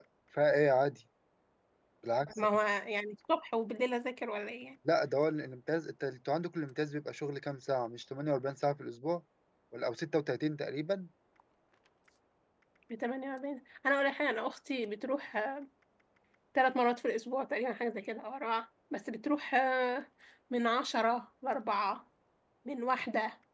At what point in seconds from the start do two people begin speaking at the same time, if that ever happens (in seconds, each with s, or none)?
none